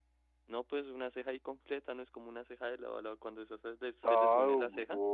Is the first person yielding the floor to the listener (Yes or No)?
Yes